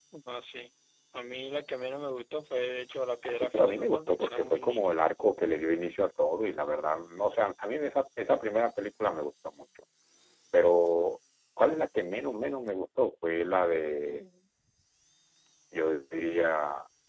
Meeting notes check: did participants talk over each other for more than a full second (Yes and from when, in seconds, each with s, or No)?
Yes, from 3.2 s